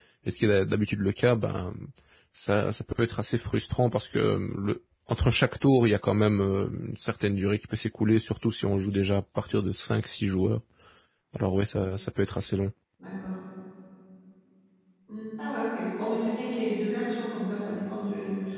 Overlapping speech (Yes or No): No